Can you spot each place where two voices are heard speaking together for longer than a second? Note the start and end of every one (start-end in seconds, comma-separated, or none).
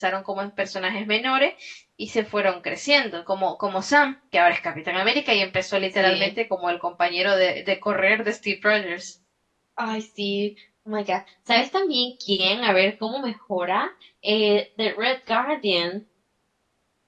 none